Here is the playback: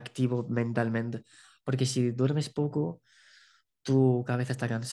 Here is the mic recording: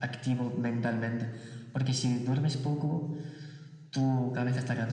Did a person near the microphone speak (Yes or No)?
No